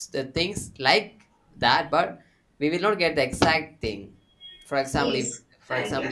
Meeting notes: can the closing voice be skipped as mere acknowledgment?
No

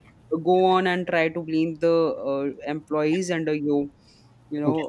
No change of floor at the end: No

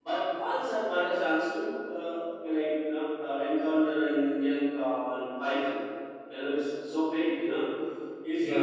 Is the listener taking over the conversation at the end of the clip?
Yes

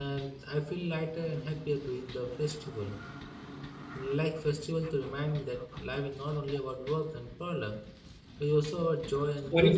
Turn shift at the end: Yes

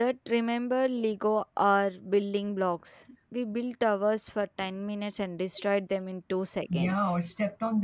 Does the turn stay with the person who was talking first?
No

